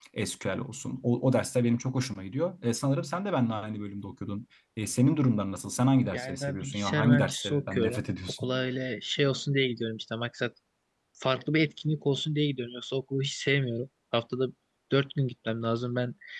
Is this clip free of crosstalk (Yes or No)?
No